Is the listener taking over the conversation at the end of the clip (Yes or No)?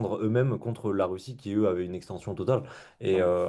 No